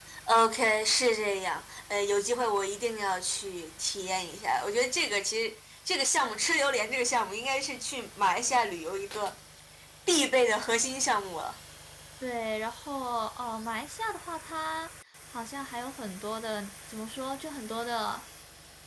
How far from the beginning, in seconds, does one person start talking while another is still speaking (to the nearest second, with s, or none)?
none